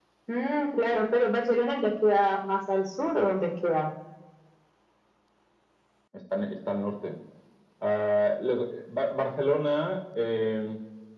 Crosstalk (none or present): none